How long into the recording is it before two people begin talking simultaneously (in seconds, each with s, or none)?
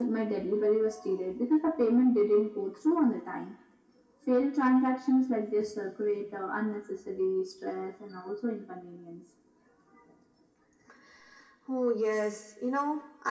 none